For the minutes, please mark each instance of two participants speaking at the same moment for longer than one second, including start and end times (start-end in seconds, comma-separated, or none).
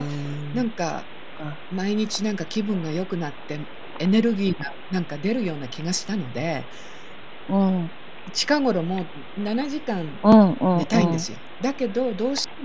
none